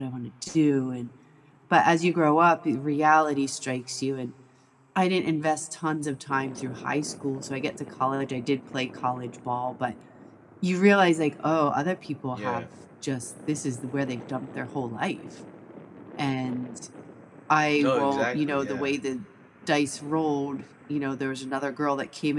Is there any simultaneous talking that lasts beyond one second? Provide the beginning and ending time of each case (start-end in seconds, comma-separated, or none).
17.8-19.0